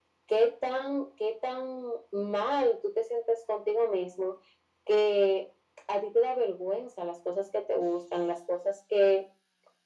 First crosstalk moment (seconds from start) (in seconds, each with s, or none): none